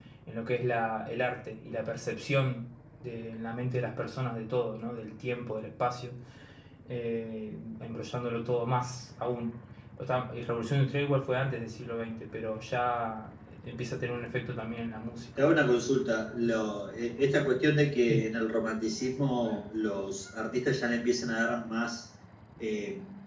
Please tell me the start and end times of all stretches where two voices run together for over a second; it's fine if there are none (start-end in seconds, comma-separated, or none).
none